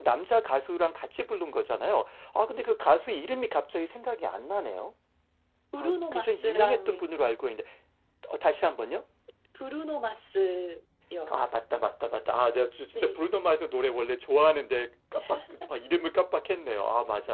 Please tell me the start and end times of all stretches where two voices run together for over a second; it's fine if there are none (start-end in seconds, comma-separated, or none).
5.8-7.0